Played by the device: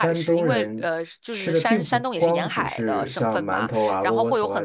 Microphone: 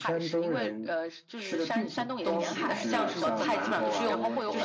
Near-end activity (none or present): present